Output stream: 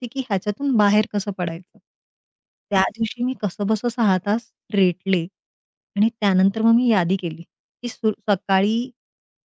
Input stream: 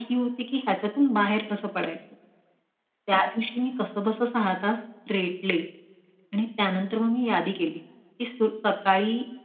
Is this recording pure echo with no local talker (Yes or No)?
Yes